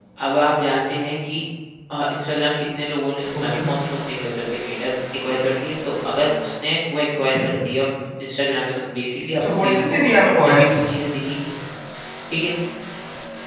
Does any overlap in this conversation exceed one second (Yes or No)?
Yes